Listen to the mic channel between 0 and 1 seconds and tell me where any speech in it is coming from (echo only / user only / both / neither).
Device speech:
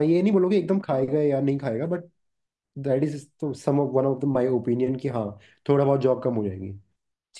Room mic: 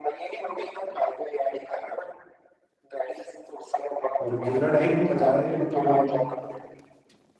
echo only